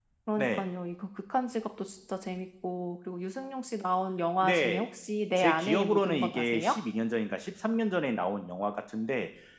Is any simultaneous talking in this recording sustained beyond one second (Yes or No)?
Yes